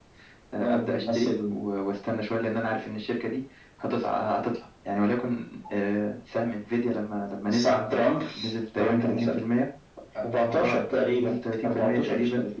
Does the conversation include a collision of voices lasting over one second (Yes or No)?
Yes